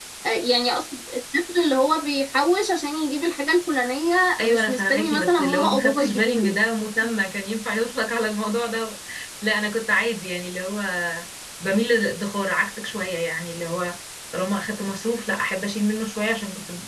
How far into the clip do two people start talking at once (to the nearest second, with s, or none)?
4 s